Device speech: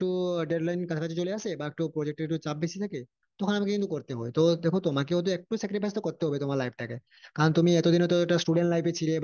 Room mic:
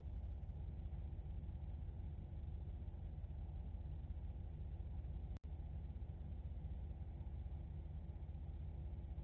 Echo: none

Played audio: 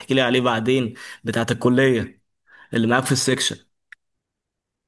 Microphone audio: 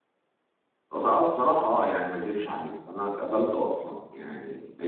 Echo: none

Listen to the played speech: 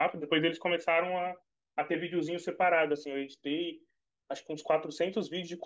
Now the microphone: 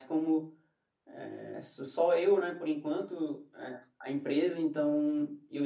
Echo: none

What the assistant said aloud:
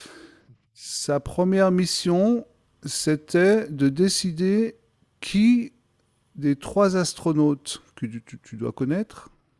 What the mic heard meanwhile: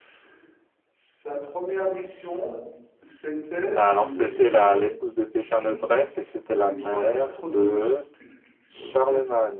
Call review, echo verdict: present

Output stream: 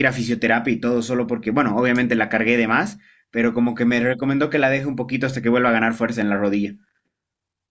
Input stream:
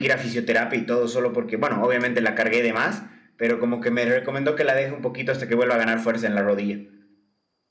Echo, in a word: present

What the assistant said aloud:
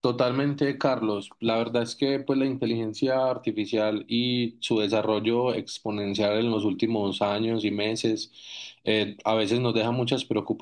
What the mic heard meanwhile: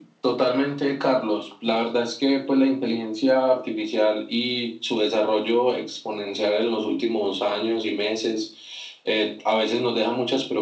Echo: present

